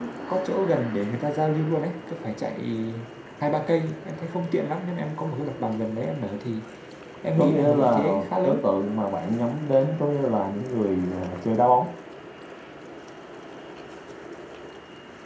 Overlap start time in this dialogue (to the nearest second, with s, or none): 7 s